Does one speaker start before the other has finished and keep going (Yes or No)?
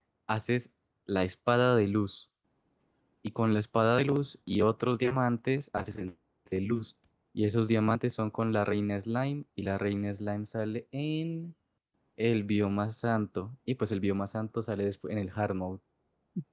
No